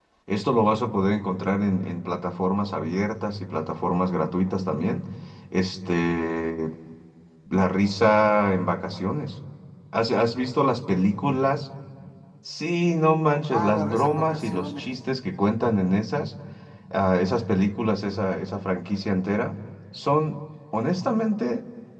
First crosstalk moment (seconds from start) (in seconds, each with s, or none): 13.5 s